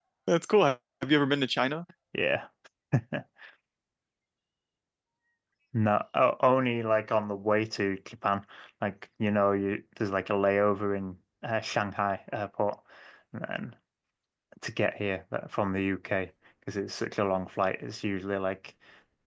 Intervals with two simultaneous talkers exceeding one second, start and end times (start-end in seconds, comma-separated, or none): none